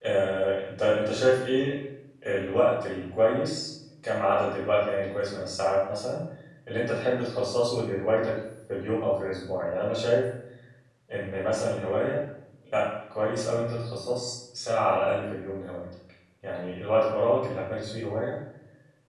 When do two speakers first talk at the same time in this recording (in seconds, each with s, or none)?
none